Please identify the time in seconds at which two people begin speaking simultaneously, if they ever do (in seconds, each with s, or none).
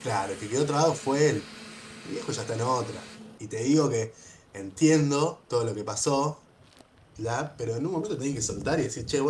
none